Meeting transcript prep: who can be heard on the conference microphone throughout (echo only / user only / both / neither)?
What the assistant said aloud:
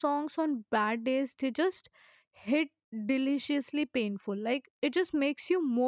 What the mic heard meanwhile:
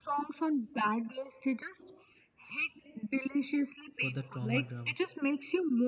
both